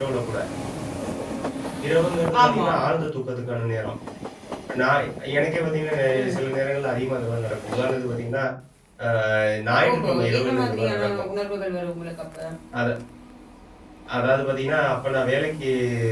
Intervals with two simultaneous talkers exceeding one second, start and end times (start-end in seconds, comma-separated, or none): 9.9-11.1